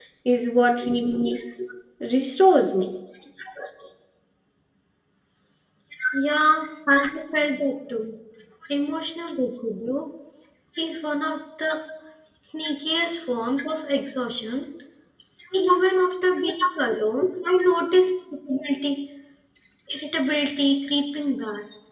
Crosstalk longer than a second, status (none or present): none